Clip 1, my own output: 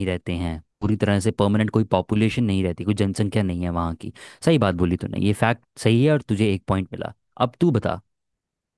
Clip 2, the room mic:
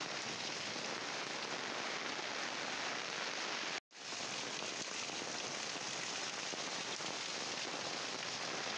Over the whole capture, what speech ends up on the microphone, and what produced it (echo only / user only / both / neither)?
neither